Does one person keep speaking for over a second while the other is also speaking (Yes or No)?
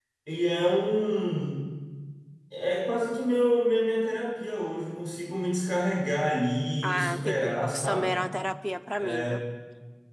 Yes